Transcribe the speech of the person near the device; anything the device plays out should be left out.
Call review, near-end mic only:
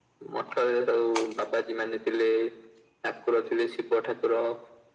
none

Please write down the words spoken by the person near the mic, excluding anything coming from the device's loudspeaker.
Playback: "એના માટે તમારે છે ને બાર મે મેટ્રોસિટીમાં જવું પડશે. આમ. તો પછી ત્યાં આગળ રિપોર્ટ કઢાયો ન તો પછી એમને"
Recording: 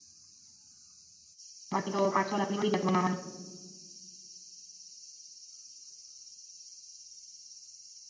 બાકી તો પાંચ છો લાખ ની પત મનાવાની

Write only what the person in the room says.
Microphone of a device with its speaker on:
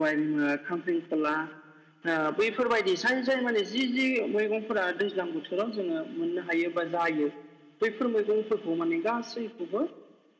none

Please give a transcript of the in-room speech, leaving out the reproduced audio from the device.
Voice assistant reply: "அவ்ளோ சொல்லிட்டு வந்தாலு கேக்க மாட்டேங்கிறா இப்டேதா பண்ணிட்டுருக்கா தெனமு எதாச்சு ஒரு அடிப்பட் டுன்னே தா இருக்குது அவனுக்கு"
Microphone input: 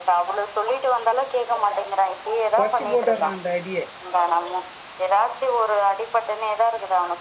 தொட்ச்சு போட்டறா அந்த அடியே

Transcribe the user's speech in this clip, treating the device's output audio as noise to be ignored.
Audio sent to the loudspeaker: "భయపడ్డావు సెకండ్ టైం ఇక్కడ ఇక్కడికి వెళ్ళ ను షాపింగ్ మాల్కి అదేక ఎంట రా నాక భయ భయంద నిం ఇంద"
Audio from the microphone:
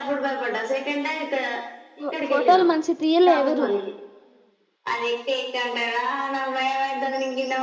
ఫో ఫోటోలు మంచి తీయలే ఎవరు

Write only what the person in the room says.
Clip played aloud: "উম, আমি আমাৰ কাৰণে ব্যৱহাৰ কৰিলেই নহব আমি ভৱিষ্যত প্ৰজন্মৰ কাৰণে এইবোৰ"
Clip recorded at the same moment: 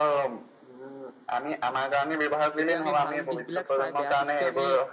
এতিয়া আমি ভাল দিশ বিলাক চাই বেয়া দিশতটো আমি

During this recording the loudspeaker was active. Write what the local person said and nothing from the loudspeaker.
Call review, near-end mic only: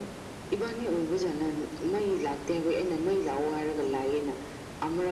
none

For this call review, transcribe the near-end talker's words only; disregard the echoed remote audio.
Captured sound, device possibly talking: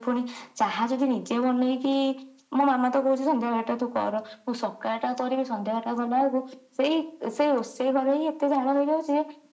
none

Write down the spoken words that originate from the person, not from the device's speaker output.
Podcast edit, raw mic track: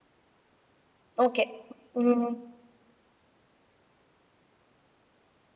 ஓகே ம்

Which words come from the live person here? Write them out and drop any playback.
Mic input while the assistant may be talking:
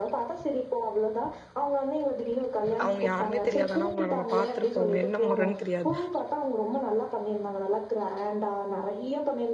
அவுங்க யாருனே தெரியாது ஆனா அவுங்ள நம்ம பாத்துருப்போஅவுங்க என்ன மொறன் திரியாது

